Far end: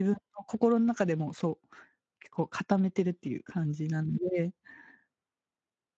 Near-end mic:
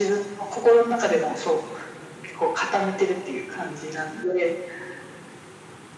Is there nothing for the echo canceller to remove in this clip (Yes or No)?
No